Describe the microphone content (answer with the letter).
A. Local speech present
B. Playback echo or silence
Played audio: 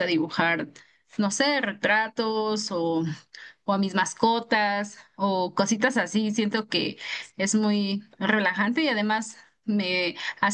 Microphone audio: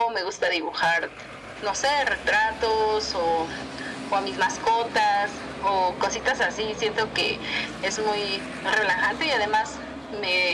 B